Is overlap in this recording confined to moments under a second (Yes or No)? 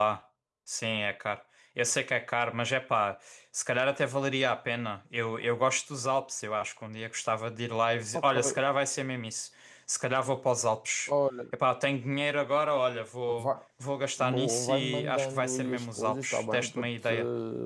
No